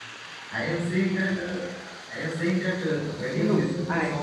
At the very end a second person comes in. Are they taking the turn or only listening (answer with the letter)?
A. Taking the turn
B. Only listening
B